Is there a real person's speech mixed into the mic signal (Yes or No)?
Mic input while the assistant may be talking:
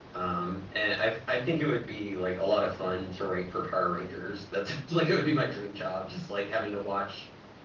Yes